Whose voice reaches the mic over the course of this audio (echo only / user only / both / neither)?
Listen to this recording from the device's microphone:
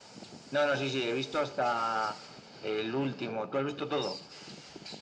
echo only